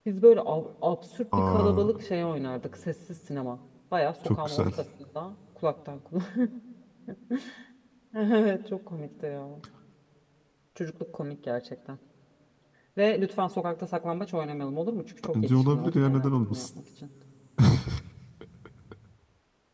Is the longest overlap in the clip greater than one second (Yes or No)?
Yes